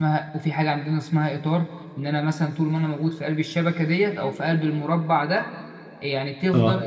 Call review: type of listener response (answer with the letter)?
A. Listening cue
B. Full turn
A